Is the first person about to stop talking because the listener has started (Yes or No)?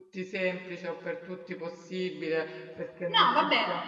Yes